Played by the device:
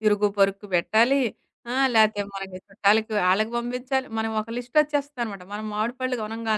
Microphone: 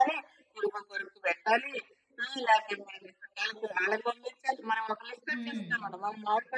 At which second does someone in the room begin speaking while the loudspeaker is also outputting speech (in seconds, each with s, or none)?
5.3 s